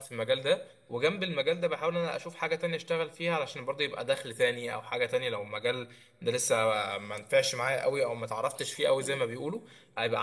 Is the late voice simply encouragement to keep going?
Yes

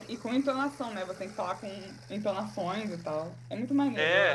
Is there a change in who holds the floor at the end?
Yes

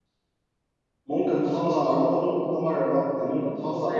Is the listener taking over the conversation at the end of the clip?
No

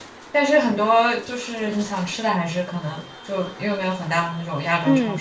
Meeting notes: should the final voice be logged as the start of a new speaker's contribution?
Yes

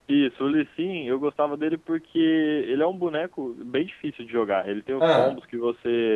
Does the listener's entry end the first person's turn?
No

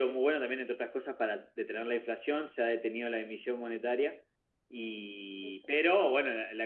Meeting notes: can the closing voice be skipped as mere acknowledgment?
Yes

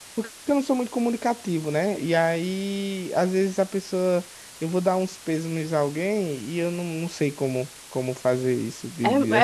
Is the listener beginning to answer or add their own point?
Yes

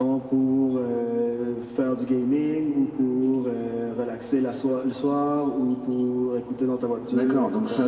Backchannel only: No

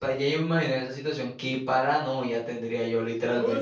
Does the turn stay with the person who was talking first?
No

